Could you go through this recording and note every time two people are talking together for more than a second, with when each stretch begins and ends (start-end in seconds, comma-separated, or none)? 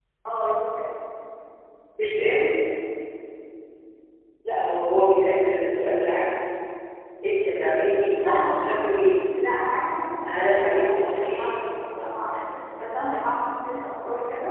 10.3-11.5